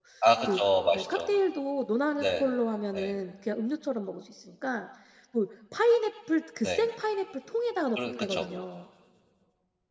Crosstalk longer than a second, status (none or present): none